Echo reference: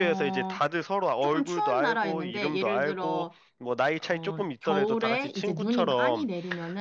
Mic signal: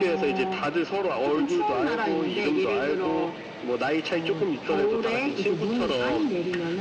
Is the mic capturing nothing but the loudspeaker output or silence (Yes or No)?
Yes